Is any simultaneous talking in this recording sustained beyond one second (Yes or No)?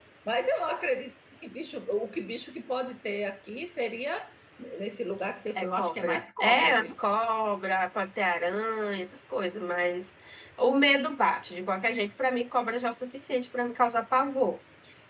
Yes